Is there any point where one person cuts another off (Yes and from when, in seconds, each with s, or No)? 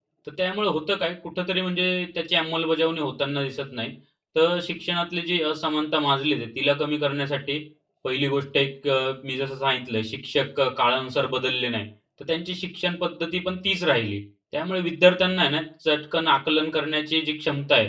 No